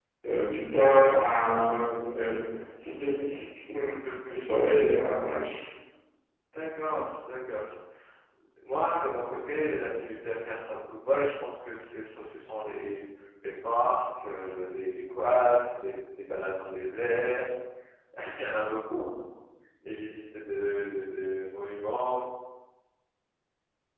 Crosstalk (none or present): none